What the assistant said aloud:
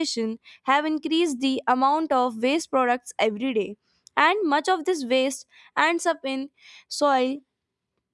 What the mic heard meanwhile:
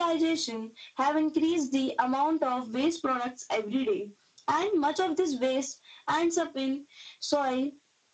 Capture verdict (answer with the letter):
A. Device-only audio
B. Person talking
A